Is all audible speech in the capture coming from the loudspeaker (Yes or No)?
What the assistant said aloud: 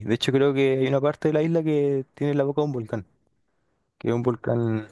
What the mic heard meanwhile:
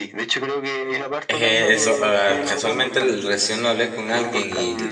No